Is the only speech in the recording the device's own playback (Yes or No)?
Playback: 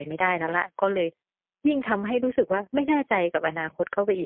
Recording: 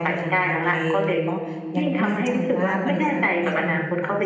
No